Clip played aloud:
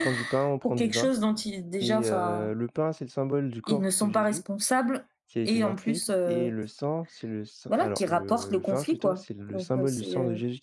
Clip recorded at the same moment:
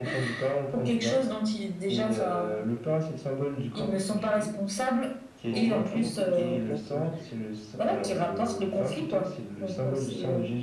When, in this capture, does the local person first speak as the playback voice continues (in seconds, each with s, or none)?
5.5 s